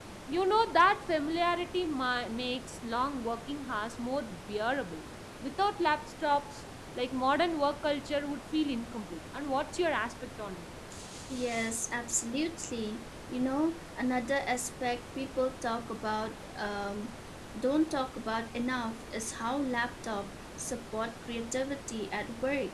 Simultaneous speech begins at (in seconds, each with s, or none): none